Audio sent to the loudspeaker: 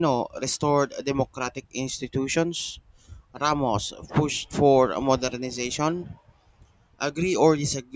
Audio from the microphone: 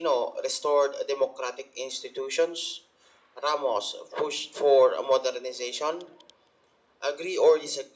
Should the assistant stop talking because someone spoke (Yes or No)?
No